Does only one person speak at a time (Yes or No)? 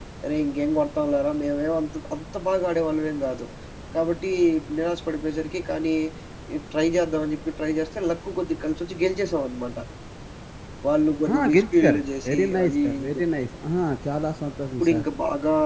No